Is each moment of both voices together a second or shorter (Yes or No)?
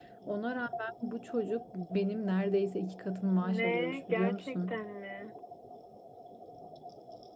No